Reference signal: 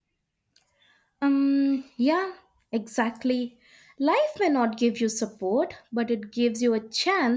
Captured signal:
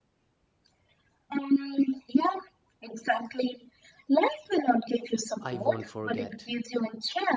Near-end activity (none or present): present